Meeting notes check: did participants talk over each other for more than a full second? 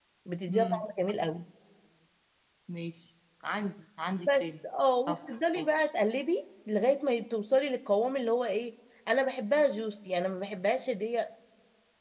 No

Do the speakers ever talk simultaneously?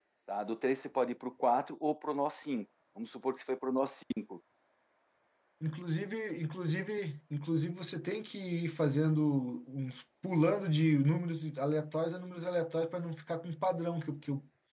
No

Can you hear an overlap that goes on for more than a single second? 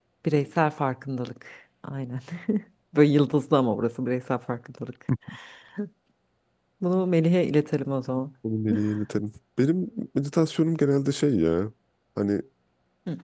No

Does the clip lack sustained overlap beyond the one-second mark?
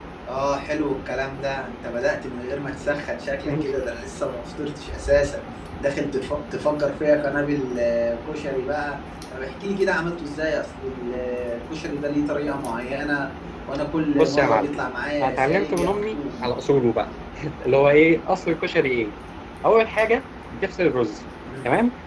No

